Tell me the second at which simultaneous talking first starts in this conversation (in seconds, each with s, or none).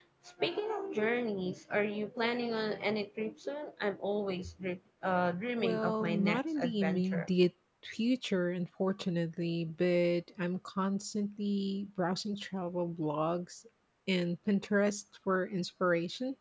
5.6 s